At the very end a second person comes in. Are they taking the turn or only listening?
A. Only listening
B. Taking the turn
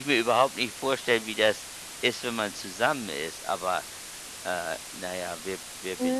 B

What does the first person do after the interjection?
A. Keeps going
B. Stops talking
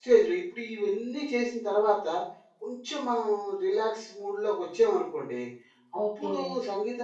A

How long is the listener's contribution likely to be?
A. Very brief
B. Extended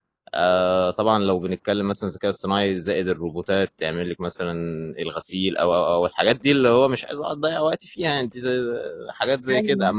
A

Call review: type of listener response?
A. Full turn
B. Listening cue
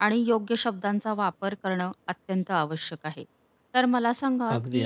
B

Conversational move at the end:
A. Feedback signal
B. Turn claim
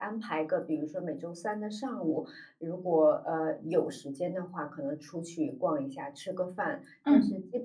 A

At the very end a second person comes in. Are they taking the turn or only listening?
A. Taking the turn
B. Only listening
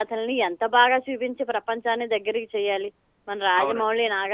A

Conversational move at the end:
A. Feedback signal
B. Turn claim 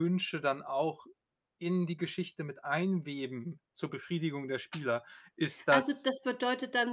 B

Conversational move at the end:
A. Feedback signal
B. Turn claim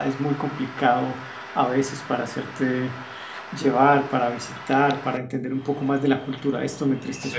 A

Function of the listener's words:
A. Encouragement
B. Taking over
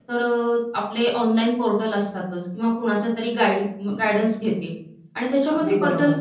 A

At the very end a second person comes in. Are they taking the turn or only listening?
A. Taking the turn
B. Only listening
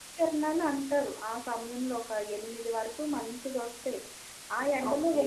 B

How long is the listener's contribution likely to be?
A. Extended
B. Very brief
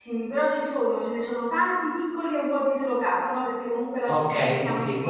A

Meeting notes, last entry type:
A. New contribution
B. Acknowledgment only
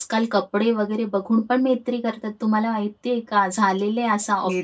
A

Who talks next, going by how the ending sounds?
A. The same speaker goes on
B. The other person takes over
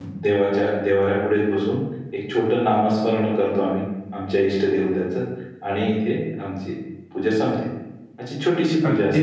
A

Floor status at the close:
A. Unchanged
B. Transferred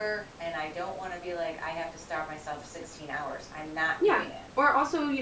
B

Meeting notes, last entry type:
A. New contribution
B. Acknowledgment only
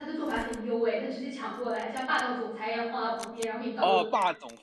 A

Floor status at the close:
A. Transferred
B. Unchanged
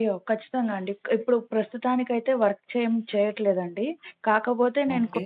B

